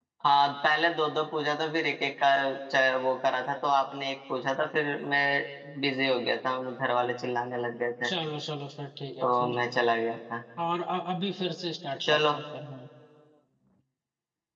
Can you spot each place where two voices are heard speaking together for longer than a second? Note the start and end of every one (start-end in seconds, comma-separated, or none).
none